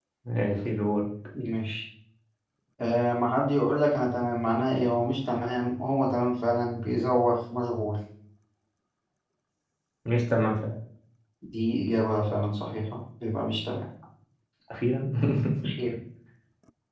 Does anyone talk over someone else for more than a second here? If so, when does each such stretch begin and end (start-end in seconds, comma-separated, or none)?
none